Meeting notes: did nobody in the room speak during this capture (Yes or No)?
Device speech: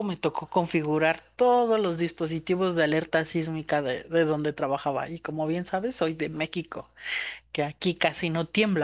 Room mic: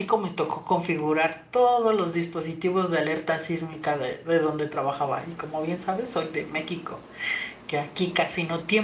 Yes